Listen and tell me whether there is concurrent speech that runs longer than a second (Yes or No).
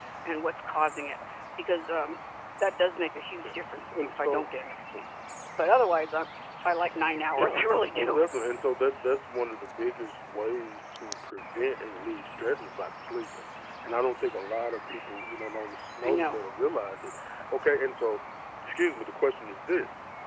No